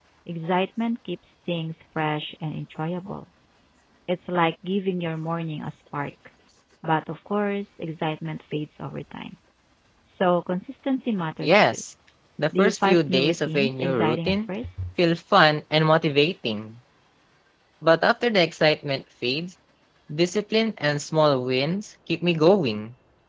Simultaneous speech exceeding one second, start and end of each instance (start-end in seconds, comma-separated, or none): 12.6-14.4